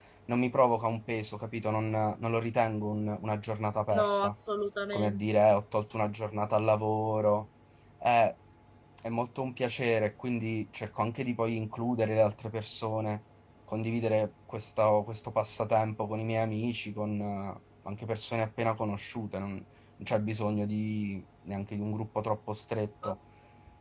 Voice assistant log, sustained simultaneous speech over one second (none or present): none